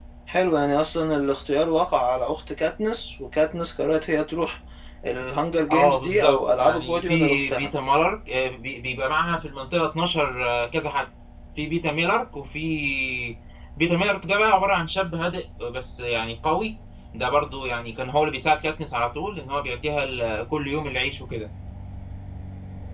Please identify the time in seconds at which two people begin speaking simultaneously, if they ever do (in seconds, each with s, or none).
5.7 s